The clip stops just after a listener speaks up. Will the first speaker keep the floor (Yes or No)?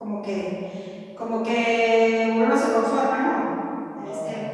Yes